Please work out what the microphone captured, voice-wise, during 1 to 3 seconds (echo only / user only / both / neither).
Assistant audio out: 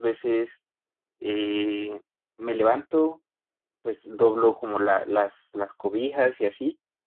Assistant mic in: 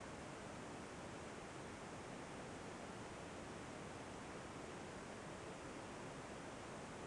neither